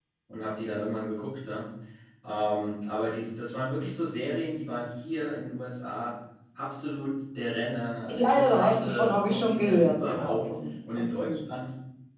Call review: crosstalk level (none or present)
present